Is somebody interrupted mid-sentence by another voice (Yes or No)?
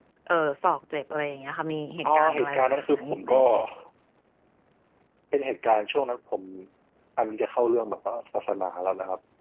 Yes